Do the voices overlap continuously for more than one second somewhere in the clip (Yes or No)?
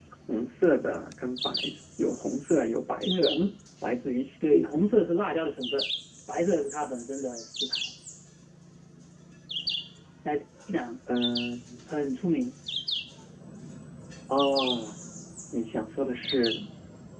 No